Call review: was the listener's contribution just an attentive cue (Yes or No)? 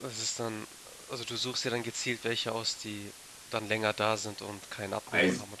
No